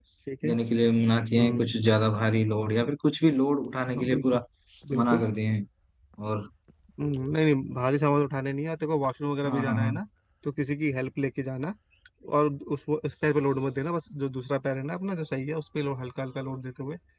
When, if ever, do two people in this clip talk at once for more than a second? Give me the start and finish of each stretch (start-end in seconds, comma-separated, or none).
none